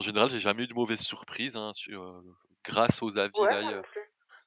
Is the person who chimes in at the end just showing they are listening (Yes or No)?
No